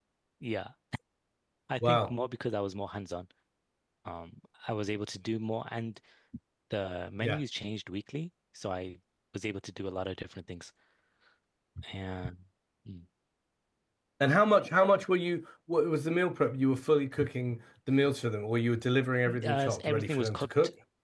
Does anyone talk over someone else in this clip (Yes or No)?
Yes